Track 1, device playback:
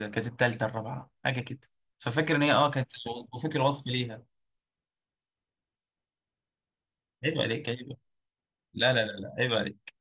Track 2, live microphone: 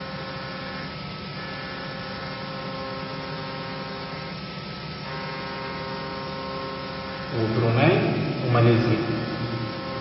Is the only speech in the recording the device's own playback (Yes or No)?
No